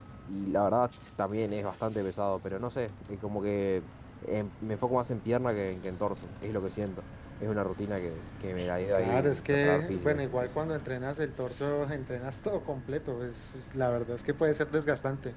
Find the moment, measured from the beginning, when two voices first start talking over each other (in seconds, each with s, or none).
8.9 s